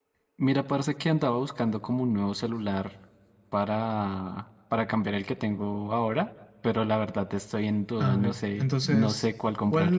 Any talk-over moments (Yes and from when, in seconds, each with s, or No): Yes, from 8.0 s